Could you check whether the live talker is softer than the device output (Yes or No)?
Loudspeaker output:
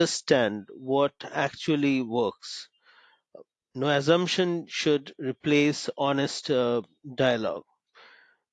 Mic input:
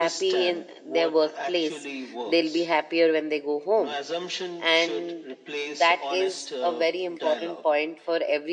No